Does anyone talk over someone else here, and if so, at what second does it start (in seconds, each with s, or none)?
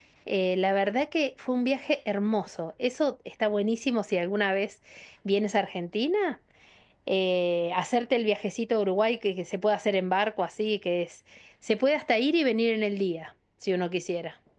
none